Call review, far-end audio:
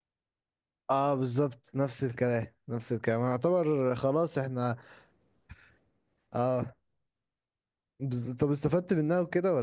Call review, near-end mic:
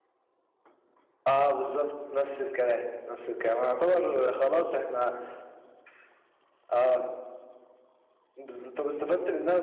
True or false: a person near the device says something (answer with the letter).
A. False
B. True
A